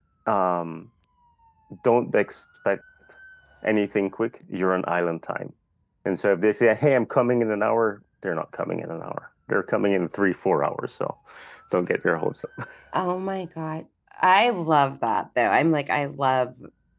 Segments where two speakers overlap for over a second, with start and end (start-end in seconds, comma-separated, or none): none